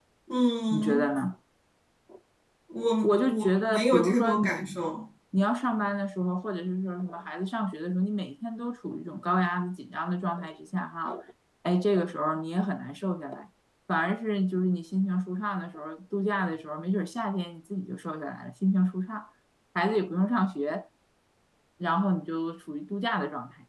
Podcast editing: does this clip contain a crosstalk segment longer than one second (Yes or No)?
Yes